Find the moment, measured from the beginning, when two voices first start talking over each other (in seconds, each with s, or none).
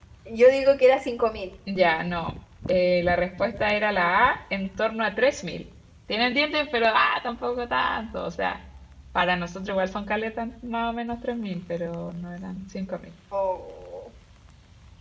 none